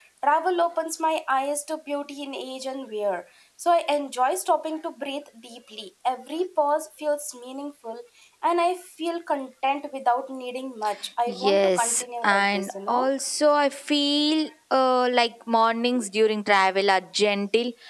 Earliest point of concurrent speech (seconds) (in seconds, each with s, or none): 11.3 s